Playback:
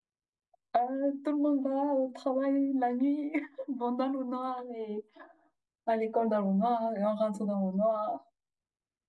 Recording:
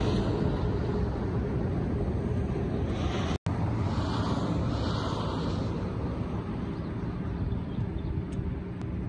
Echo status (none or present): none